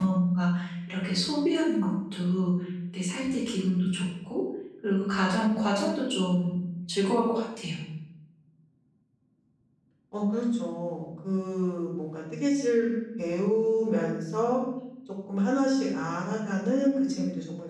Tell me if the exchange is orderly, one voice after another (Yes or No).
Yes